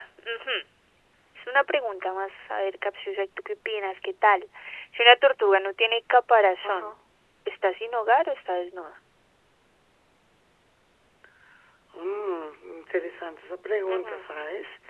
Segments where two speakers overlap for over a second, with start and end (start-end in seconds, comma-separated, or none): none